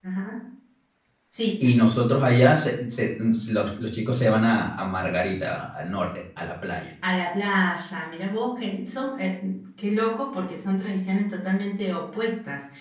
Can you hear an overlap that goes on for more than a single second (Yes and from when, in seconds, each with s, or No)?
No